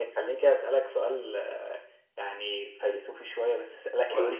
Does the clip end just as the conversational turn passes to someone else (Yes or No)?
No